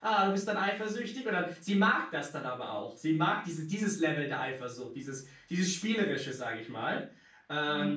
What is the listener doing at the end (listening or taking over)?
listening